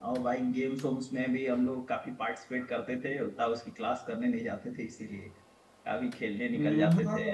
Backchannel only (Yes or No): No